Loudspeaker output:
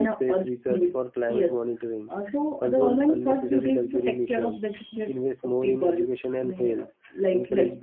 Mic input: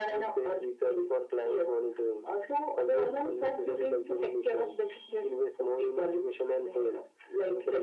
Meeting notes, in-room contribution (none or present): none